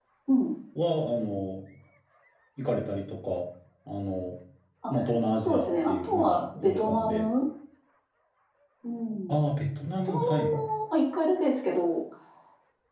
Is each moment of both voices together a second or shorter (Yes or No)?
No